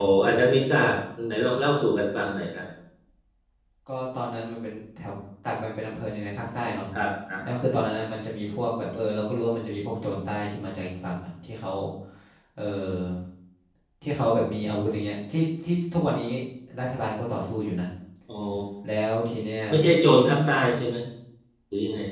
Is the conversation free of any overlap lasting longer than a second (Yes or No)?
Yes